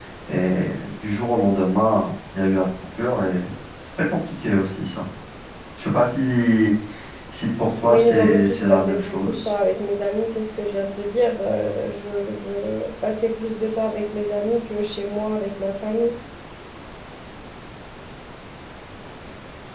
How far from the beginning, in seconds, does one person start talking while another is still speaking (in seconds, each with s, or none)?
7.9 s